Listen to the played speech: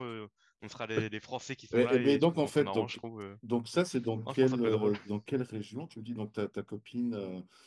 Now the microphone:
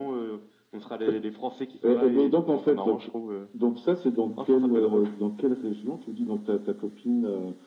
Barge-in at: none

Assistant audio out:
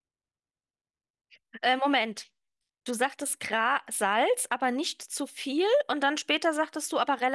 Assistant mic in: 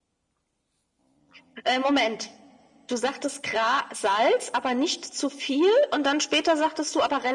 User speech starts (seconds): none

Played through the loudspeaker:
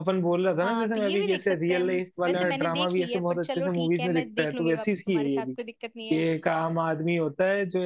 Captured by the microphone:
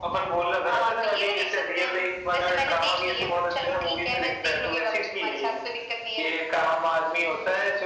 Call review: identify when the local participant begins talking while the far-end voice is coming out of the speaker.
none

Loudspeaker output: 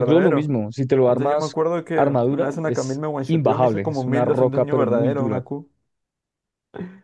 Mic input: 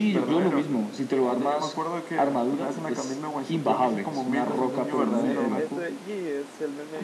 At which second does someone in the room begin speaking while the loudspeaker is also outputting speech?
5 s

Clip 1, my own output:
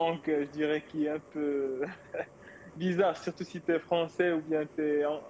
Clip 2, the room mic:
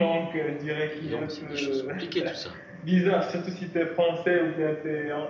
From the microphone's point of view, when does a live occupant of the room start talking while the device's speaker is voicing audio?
1 s

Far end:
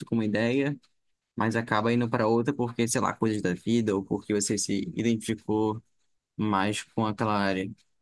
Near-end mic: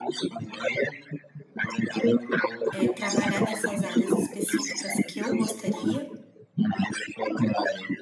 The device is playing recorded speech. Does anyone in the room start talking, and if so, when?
3 s

